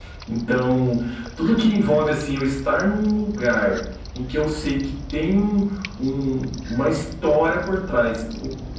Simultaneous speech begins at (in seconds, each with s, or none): none